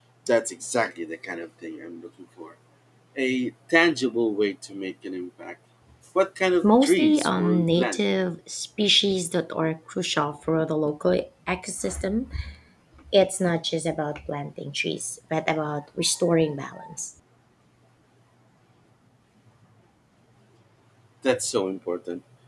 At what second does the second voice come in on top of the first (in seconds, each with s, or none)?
6.6 s